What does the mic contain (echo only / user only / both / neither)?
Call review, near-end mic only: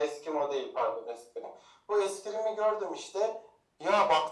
echo only